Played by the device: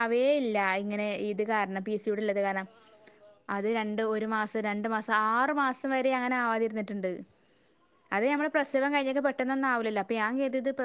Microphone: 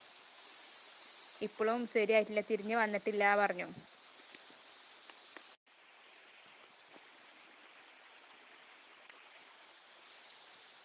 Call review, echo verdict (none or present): none